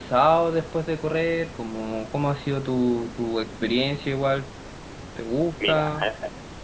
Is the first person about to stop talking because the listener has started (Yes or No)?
Yes